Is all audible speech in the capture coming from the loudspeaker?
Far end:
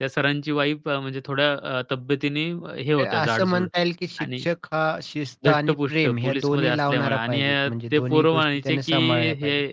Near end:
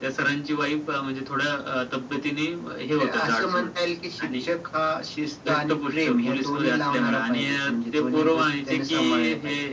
Yes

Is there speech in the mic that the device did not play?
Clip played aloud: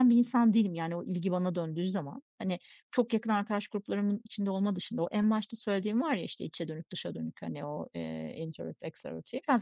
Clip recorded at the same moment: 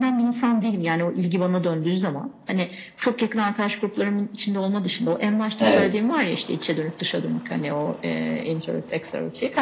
Yes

